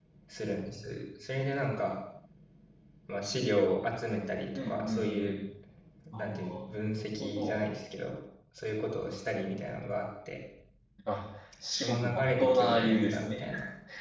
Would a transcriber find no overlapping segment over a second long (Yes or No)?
No